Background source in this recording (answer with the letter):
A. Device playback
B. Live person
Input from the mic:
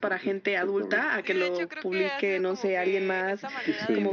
B